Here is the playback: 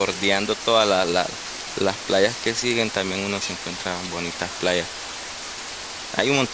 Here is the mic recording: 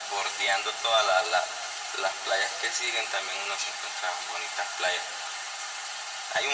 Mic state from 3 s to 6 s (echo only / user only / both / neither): echo only